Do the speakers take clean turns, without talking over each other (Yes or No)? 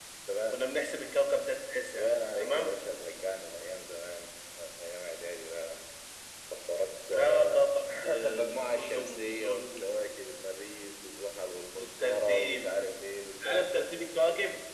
No